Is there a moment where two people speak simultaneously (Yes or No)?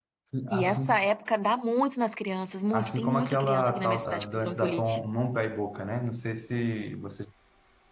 Yes